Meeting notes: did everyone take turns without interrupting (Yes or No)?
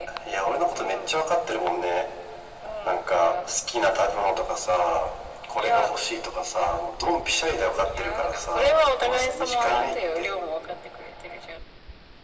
No